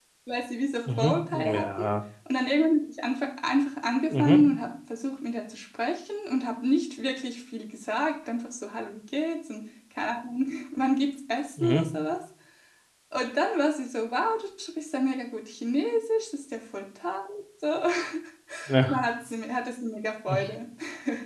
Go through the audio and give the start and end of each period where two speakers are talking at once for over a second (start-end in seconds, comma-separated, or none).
none